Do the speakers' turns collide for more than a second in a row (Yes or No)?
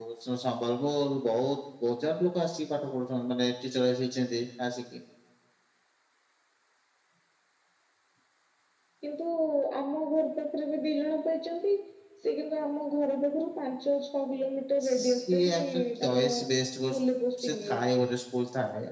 Yes